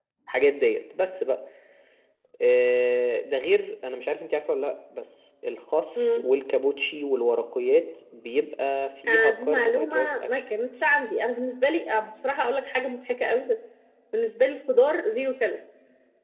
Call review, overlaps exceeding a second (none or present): present